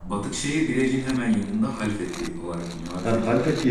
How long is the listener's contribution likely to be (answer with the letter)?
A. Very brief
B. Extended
B